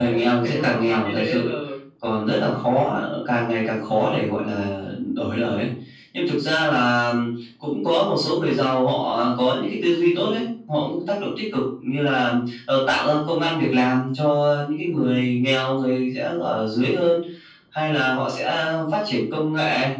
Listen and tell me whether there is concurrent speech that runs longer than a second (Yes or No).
Yes